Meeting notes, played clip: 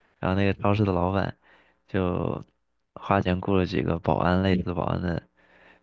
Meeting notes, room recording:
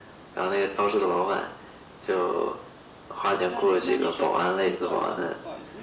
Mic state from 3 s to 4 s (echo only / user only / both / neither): both